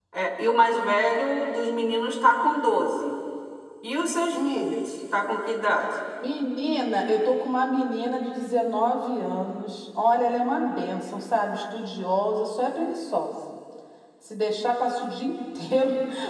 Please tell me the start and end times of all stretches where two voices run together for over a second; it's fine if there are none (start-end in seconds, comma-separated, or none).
none